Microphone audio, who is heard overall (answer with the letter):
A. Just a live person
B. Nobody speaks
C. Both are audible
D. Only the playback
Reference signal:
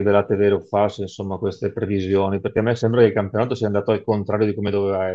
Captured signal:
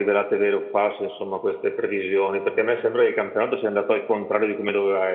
D